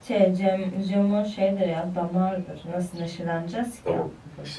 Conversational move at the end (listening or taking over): taking over